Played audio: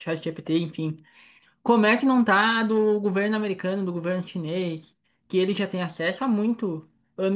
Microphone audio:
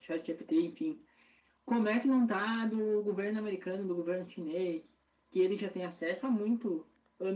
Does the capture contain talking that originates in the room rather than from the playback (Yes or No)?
No